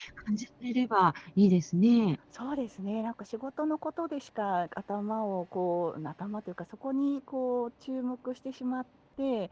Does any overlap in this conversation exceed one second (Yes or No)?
No